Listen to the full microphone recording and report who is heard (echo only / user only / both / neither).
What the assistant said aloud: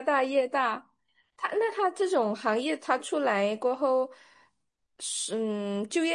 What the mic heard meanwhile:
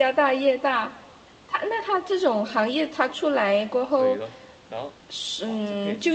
both